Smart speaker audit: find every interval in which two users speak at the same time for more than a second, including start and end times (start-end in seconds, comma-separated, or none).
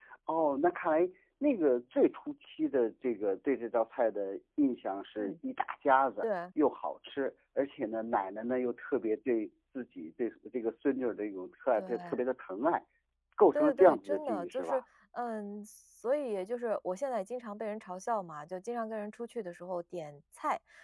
13.6-14.8